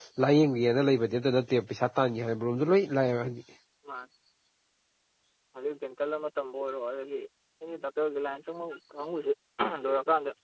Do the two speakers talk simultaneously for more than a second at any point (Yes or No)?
No